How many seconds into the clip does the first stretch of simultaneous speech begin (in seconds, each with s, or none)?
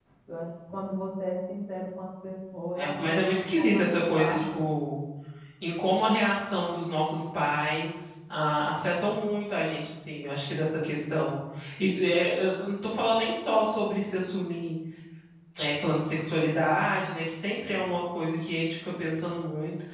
2.7 s